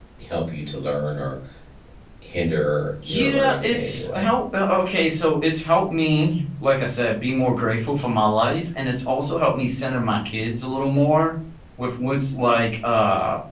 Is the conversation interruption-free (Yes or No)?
No